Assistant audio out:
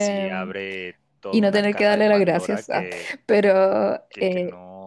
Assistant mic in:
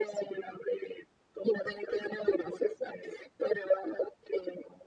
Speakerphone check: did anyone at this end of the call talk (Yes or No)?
No